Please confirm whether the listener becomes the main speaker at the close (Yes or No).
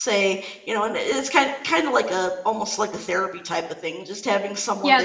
Yes